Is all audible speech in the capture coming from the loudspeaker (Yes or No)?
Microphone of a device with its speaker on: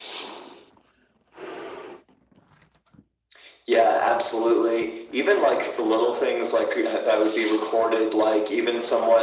Yes